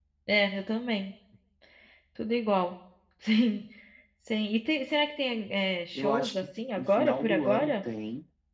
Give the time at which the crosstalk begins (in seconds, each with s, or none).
6.0 s